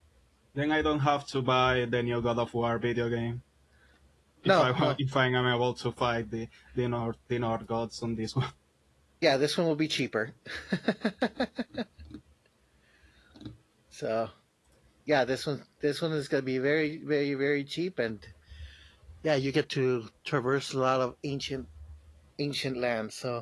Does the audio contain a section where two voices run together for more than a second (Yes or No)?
No